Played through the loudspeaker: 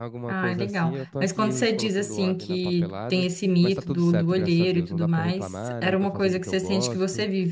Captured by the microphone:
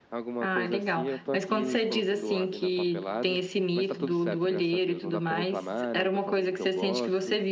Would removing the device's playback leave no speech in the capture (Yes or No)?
Yes